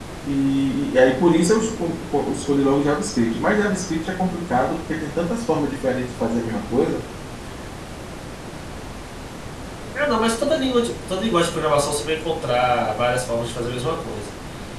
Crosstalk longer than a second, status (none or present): none